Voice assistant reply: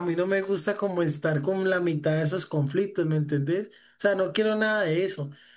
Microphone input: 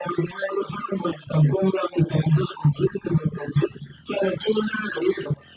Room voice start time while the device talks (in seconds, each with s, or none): none